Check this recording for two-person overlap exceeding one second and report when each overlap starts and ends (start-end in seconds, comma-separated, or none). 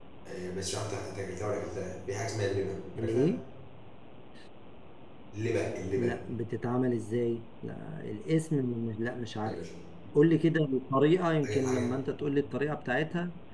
none